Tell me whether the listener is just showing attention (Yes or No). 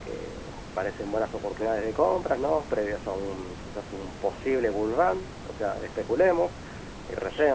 Yes